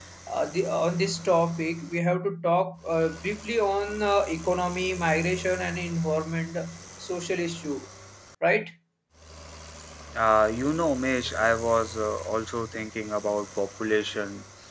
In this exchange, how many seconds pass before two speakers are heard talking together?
none

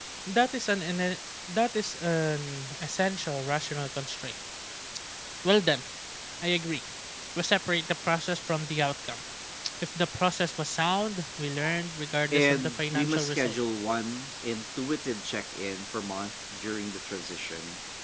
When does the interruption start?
12.3 s

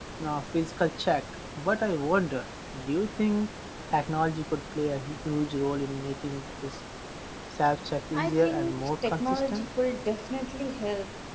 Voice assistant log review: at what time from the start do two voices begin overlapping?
8.1 s

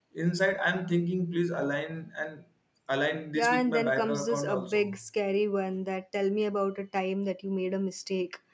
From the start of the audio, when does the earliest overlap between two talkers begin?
3.3 s

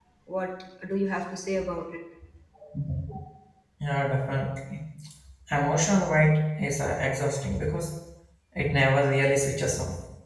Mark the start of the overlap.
none

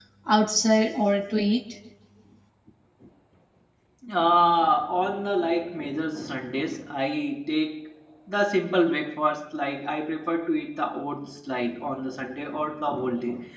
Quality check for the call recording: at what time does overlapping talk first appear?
none

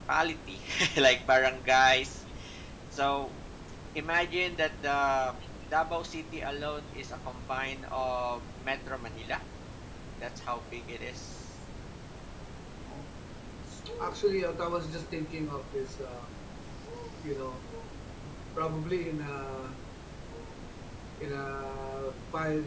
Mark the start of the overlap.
none

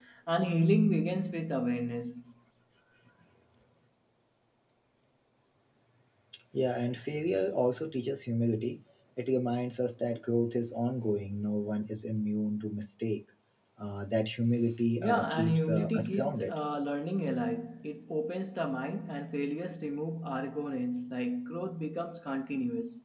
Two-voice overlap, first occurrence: 15.0 s

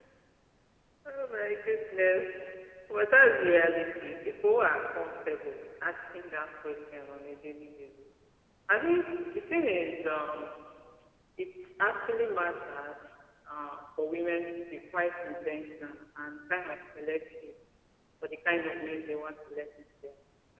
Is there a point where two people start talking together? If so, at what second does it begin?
none

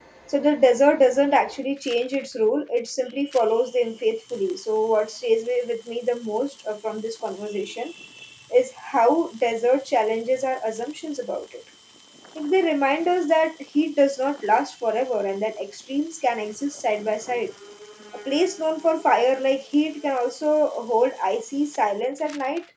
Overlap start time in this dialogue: none

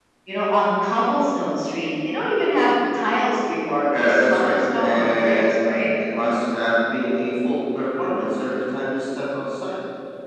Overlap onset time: 3.9 s

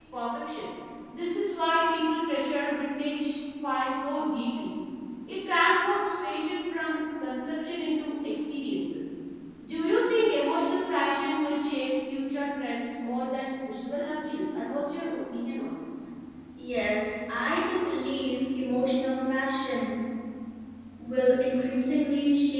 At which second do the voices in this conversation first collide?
none

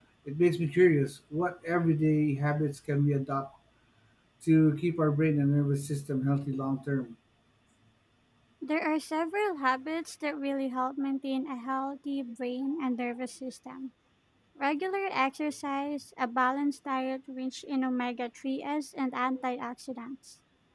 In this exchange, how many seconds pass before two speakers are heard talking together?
none

